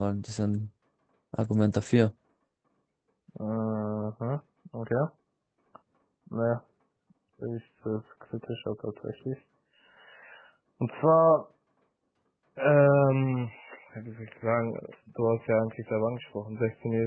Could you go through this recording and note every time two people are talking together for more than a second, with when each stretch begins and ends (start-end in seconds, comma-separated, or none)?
none